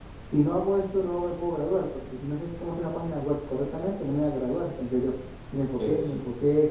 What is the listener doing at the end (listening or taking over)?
listening